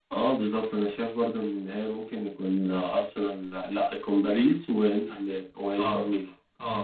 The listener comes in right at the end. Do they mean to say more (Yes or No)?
Yes